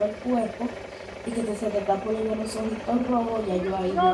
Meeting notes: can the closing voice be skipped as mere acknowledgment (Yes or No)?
No